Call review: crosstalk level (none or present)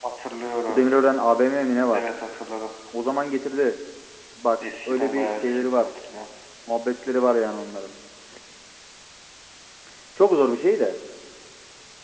present